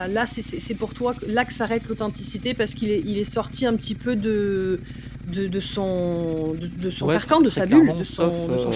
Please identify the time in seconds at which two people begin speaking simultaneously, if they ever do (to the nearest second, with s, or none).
7 s